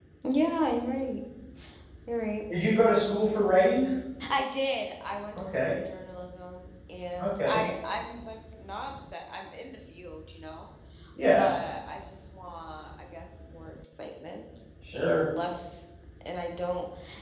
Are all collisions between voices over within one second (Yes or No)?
Yes